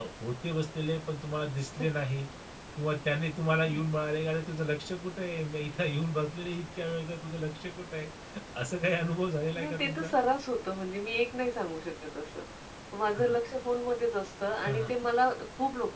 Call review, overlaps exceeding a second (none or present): none